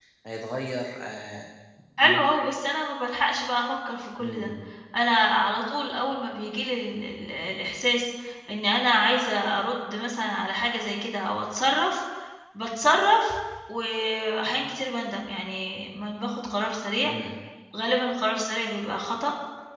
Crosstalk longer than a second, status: none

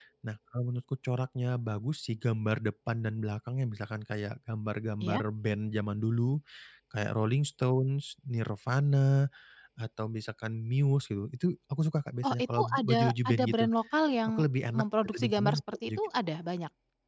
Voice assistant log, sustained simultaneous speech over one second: present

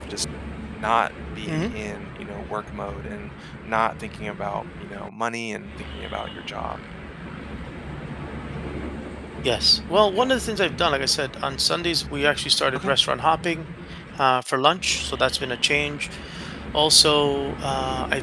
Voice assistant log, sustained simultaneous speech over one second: none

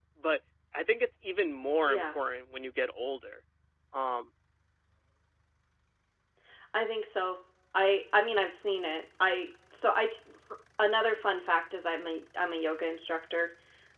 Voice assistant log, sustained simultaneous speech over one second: none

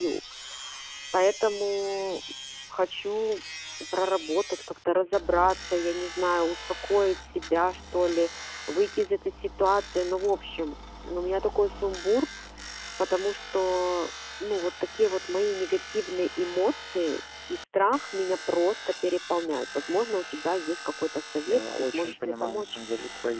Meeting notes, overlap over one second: present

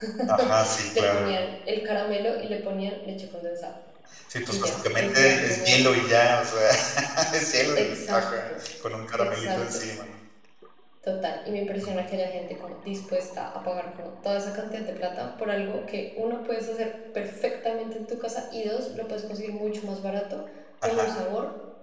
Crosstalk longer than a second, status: present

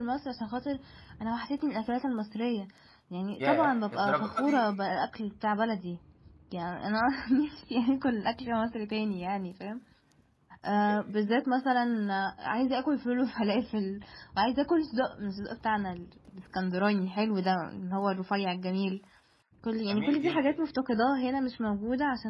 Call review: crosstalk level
present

